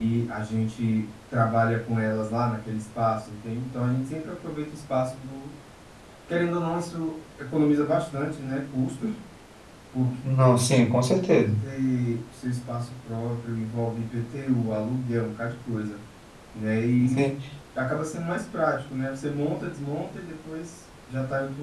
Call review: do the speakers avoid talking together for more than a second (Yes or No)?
Yes